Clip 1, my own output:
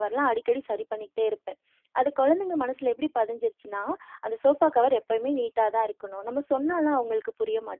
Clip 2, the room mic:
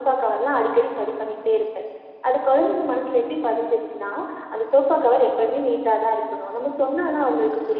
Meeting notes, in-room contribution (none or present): none